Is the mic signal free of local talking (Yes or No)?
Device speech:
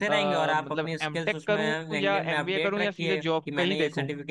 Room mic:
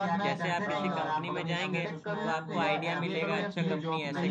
No